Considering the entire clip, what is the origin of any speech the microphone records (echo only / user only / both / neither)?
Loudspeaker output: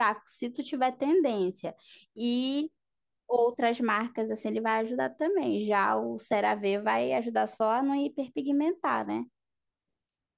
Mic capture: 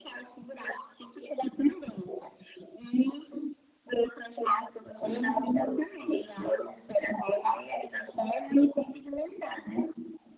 both